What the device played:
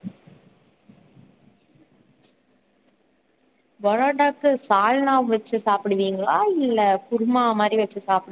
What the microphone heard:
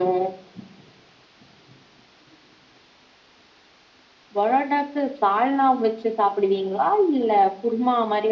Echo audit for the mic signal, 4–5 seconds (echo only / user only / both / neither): echo only